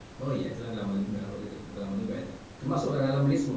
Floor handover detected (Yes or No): No